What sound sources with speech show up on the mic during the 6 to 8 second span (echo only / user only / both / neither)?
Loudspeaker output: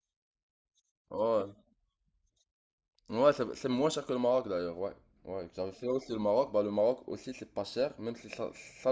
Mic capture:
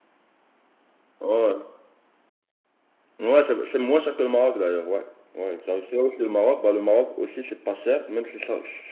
echo only